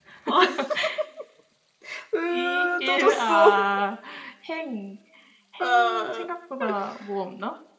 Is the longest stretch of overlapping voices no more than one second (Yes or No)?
No